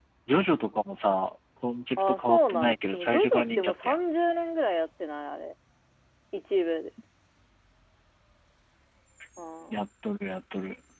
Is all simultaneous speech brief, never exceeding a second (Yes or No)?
No